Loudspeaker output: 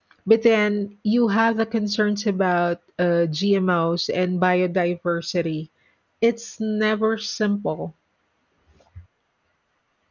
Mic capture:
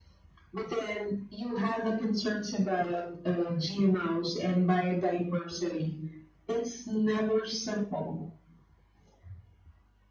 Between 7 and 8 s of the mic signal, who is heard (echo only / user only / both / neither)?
echo only